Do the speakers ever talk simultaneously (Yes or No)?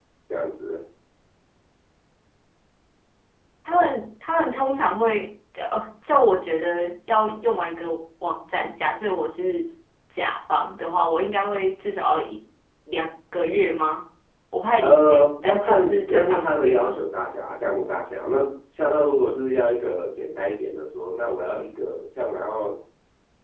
Yes